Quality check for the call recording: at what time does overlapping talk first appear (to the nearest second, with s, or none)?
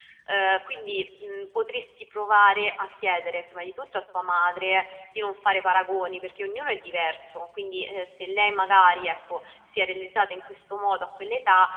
none